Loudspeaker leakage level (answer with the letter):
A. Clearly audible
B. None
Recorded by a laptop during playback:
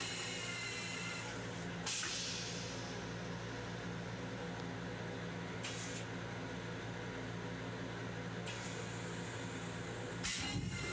B